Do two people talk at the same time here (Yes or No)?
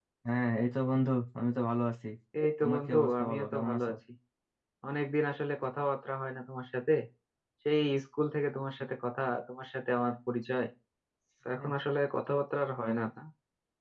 Yes